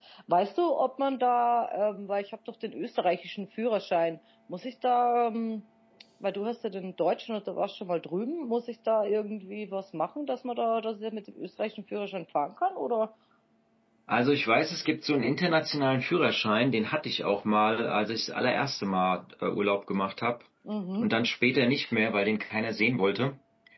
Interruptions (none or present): none